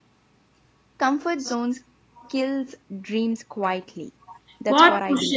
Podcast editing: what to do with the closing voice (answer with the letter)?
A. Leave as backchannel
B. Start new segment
B